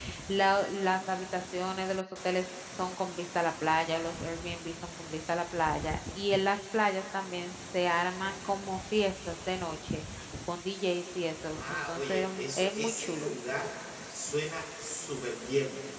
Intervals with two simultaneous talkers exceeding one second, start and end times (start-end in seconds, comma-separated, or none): 11.6-13.3